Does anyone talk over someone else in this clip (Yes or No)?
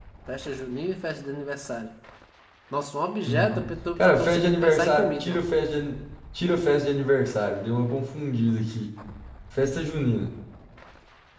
Yes